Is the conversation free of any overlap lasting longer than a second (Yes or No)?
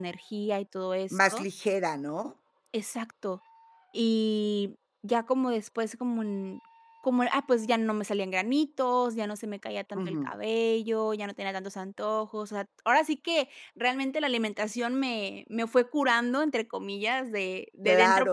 Yes